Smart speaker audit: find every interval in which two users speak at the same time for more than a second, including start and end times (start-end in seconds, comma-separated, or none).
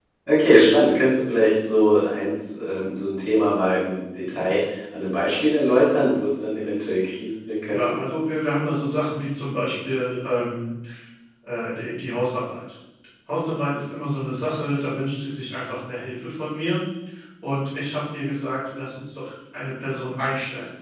none